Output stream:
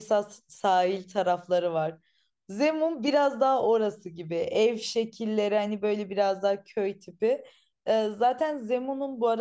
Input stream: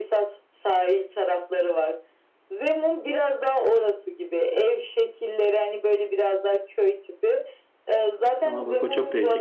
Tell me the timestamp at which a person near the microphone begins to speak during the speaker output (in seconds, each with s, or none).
8.4 s